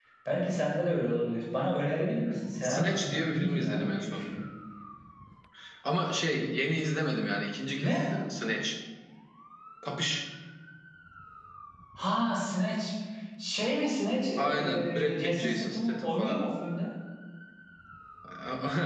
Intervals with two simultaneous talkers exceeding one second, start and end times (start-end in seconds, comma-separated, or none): 2.6-4.3, 14.4-16.4